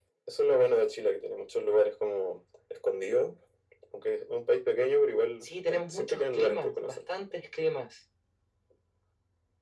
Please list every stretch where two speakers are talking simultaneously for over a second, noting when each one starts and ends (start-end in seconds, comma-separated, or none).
5.4-7.0